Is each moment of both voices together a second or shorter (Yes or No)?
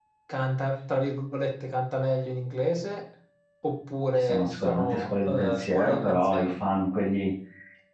No